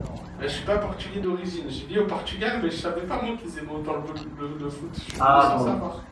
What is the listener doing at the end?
taking over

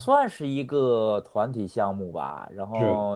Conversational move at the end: listening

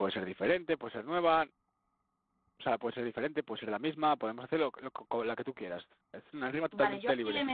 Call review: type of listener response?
taking over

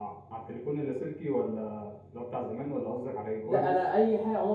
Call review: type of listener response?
taking over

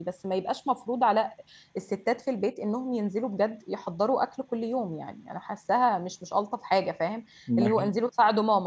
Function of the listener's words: listening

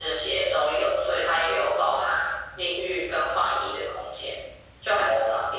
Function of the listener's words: taking over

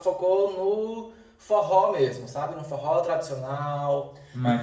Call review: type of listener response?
listening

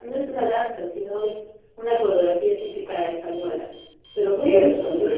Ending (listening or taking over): taking over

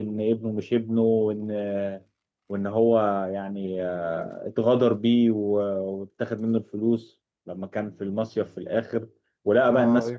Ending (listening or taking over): listening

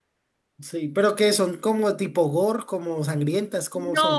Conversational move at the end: taking over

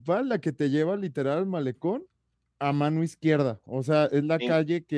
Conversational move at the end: listening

